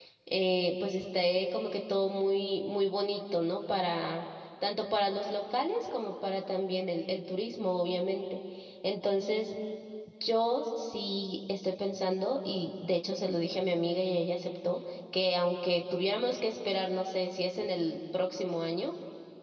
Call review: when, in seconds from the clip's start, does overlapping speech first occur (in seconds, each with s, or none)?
none